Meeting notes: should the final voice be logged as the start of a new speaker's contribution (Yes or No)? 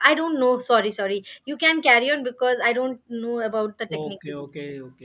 Yes